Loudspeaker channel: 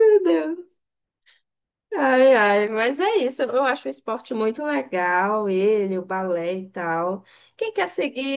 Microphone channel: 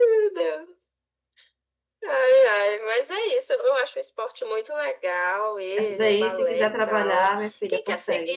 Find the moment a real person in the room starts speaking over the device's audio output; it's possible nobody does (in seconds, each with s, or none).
5.8 s